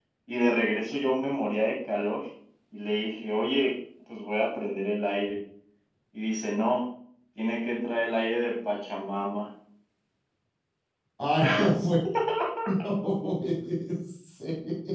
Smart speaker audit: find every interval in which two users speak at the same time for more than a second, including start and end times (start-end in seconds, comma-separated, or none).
none